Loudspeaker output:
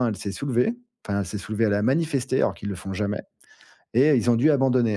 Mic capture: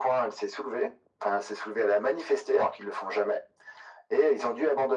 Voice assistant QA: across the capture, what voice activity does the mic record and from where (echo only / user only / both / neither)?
echo only